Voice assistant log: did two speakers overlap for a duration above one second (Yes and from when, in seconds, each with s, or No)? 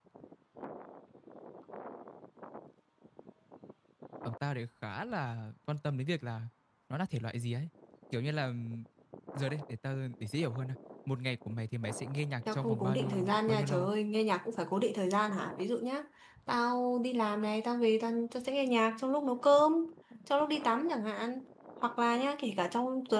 Yes, from 12.5 s